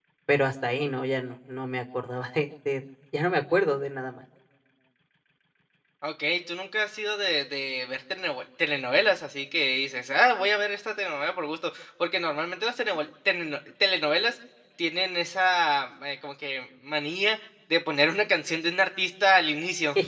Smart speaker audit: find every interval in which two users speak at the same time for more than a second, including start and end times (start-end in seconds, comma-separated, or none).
none